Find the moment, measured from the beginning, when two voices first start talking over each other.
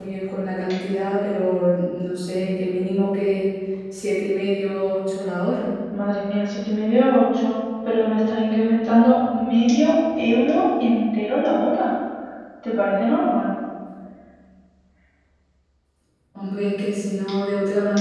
none

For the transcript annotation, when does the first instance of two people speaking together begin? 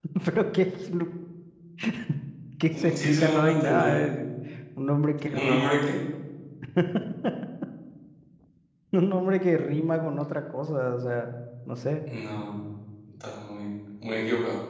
2.7 s

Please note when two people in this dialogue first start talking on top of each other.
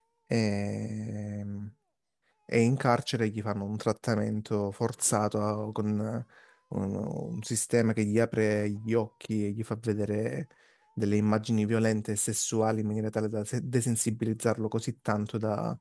none

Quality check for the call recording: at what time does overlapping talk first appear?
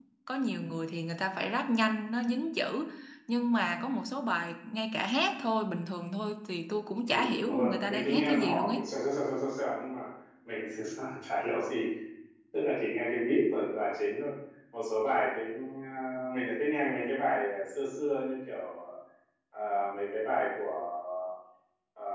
7.1 s

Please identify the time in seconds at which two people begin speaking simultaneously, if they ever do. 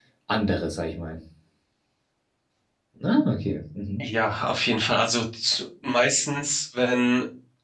none

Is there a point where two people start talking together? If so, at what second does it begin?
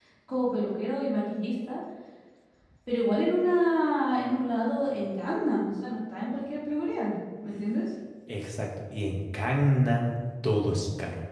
none

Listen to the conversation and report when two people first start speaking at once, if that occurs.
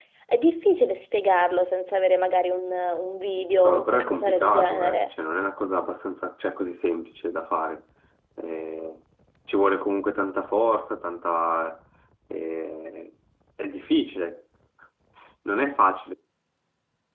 3.6 s

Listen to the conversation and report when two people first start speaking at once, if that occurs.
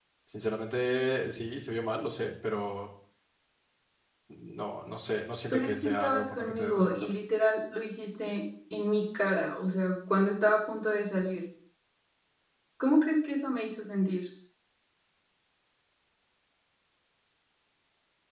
5.5 s

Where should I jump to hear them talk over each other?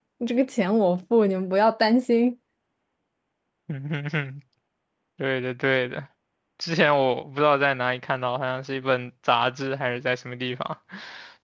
none

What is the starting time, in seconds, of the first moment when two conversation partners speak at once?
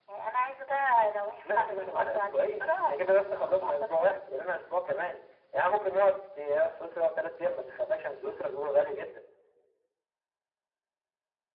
1.4 s

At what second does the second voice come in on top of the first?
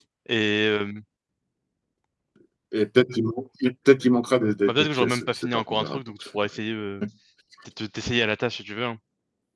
4.7 s

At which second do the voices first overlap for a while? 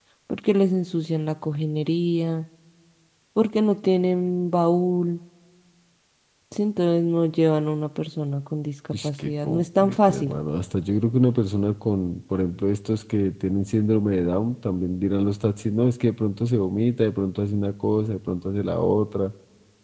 8.9 s

